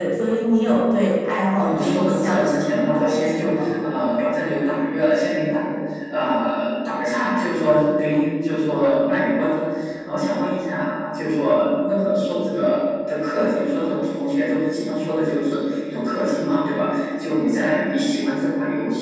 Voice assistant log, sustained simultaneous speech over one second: present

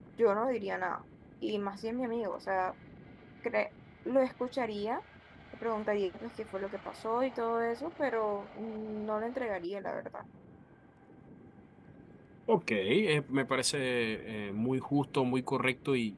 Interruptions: none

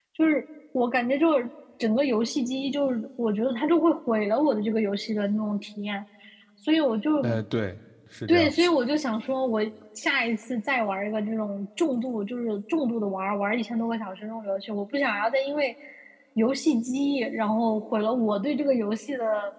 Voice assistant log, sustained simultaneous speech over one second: none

